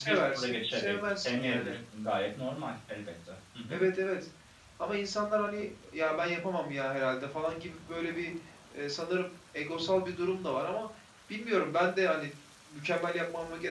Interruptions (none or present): present